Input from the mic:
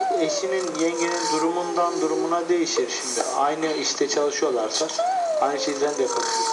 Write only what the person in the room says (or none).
none